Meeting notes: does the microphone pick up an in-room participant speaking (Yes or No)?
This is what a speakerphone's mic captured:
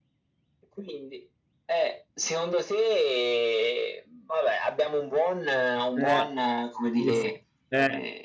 Yes